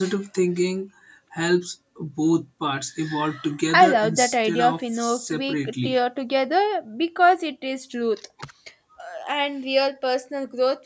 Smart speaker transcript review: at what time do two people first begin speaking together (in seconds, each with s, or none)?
3.7 s